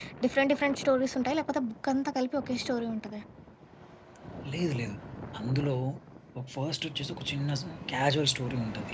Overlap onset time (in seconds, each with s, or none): none